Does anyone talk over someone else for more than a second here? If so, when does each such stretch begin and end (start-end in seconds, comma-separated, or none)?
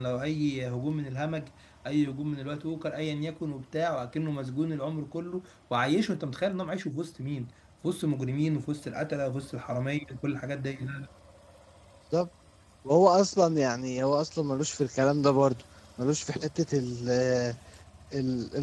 none